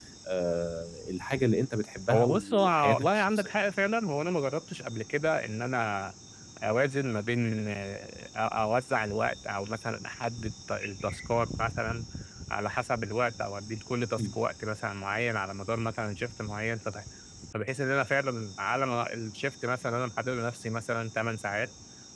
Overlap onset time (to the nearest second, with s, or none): 2 s